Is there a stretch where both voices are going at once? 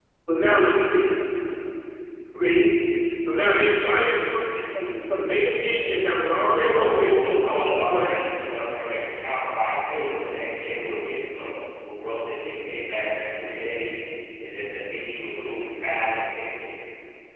Yes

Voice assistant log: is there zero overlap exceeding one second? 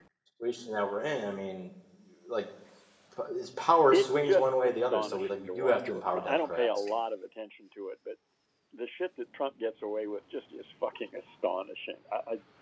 No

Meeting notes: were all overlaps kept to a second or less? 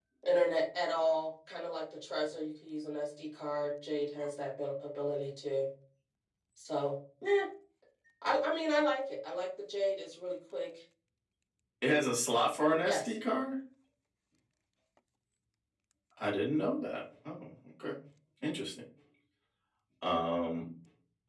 Yes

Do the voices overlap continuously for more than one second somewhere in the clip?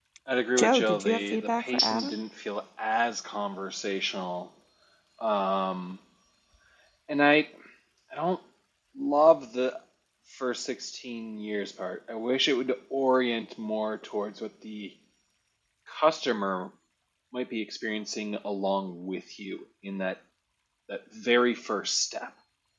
Yes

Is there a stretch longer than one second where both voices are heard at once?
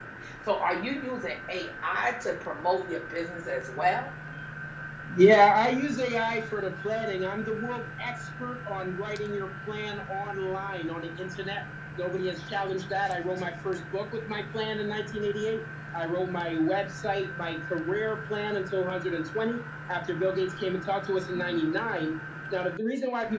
No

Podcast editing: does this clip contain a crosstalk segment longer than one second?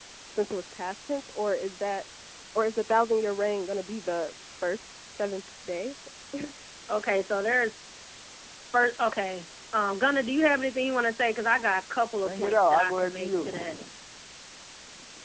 Yes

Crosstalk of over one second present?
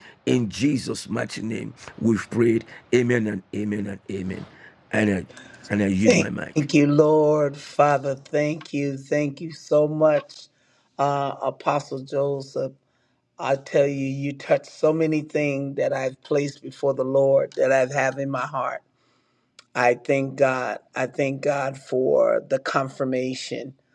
No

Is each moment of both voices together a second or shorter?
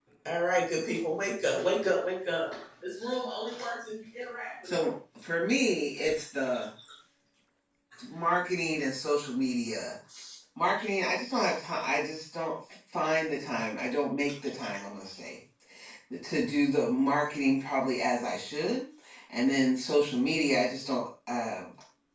Yes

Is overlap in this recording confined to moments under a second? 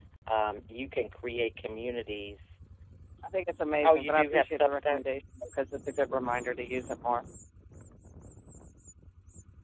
No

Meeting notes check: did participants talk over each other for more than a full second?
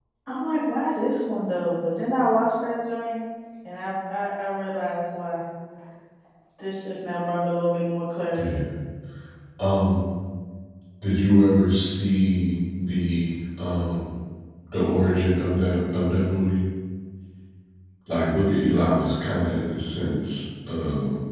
No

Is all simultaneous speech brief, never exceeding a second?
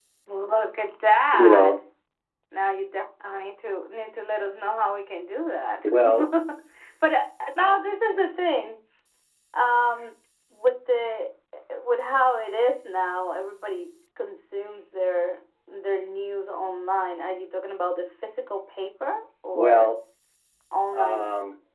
Yes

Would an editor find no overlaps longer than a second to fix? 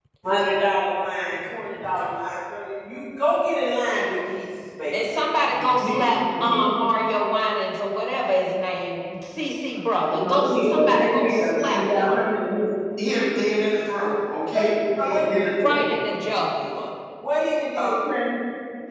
No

